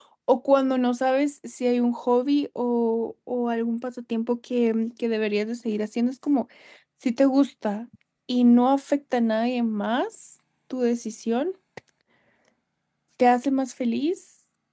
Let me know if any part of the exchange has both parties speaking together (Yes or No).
No